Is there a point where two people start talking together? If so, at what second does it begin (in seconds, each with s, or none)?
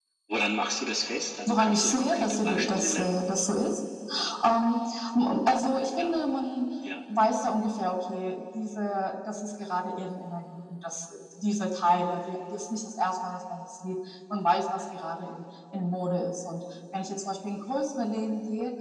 1.5 s